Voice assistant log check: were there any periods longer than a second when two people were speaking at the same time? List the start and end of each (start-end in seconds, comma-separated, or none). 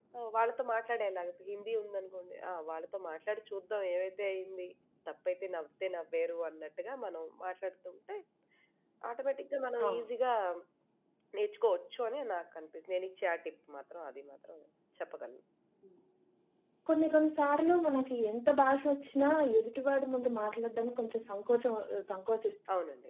none